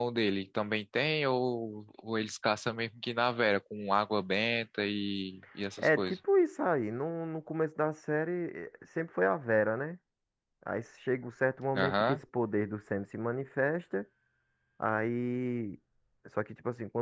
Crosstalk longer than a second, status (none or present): none